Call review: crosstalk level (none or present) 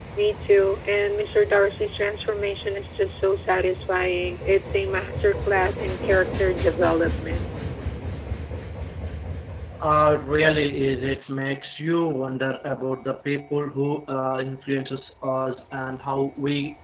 none